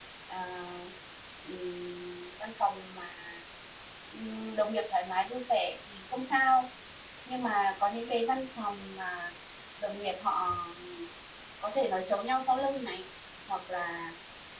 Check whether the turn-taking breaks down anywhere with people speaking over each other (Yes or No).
No